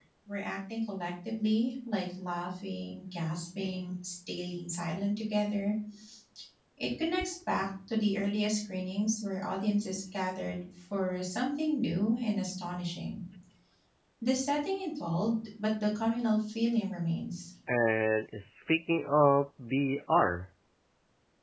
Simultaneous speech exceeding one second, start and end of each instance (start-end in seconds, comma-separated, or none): none